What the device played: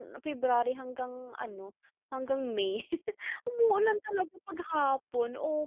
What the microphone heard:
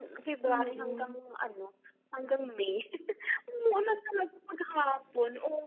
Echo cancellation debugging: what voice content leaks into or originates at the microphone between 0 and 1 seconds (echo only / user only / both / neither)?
both